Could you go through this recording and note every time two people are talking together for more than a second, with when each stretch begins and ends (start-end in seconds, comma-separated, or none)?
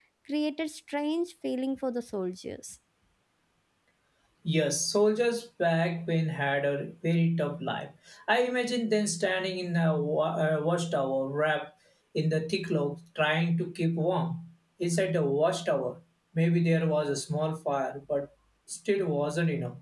none